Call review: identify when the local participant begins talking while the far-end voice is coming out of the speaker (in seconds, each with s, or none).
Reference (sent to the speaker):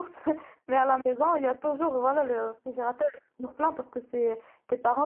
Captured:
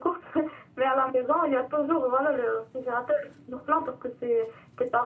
none